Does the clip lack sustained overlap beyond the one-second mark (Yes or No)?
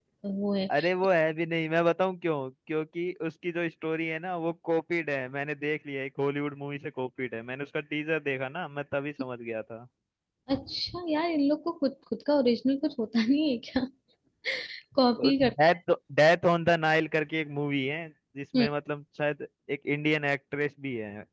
Yes